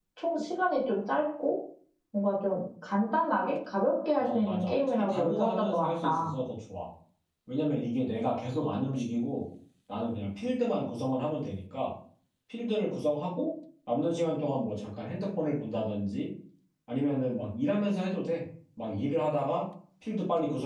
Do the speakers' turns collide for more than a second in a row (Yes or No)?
Yes